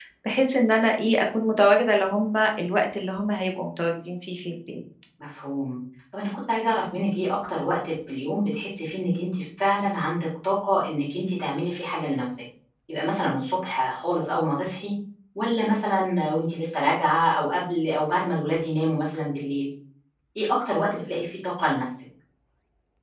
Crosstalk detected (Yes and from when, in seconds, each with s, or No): No